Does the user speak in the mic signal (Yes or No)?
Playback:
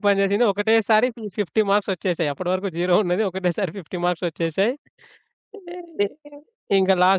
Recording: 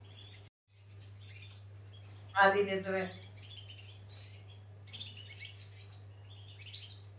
Yes